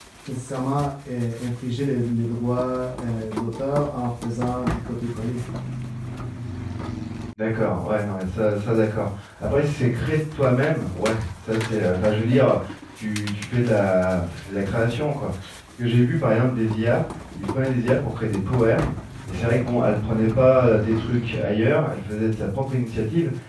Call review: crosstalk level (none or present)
none